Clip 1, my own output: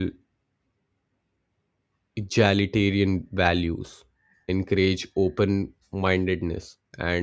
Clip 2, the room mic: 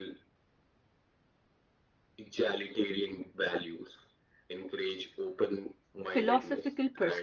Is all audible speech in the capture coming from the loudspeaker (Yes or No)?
No